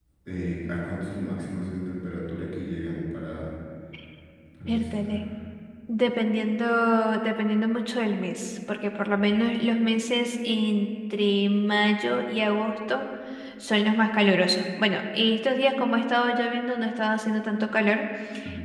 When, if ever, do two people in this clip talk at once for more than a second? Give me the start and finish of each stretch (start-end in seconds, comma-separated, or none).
none